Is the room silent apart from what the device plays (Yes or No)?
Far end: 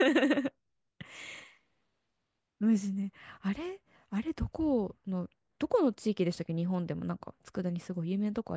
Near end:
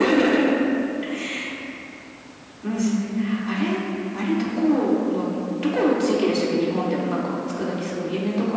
Yes